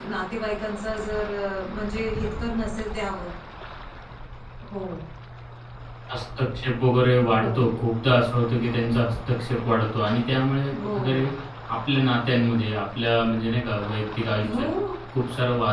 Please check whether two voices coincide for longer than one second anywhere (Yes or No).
No